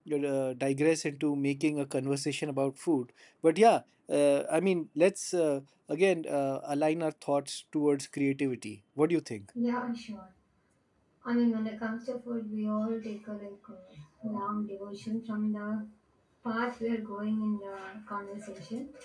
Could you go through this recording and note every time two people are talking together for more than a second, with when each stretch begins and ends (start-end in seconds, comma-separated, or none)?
none